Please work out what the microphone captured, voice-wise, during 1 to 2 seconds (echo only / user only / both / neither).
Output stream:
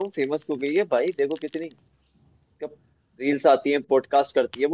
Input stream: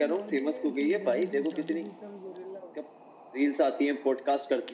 both